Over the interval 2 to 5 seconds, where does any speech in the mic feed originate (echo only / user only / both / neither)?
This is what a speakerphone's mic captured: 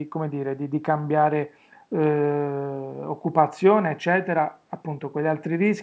user only